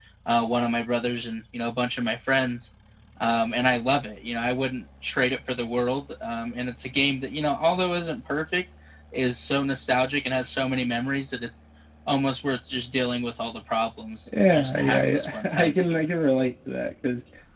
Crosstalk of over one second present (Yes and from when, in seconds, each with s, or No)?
Yes, from 14.3 s